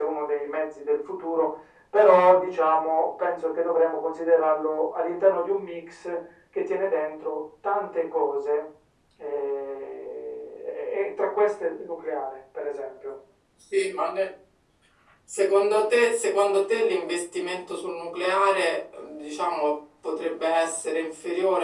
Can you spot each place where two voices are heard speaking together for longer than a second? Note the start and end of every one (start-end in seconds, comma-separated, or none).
none